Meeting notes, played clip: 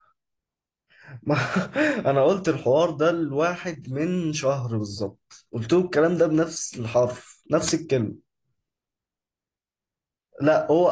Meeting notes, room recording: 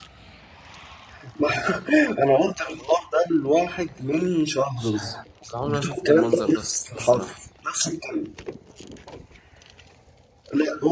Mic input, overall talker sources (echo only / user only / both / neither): both